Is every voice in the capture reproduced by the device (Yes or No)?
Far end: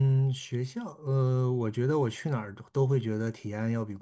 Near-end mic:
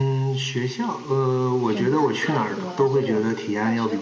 No